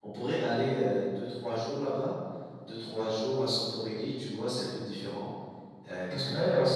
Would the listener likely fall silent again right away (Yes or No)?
No